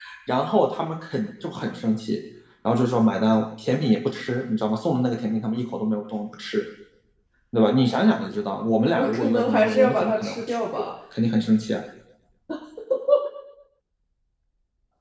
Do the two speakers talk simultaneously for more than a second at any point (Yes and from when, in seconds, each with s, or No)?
Yes, from 8.9 s